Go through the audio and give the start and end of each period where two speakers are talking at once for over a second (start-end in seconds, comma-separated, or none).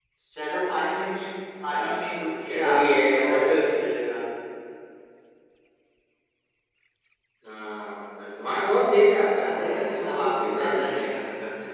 2.4-3.6, 9.4-11.1